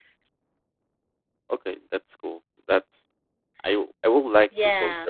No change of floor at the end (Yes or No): Yes